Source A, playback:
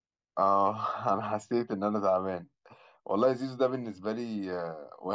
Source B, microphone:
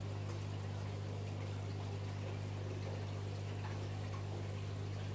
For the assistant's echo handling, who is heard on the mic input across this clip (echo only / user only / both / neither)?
neither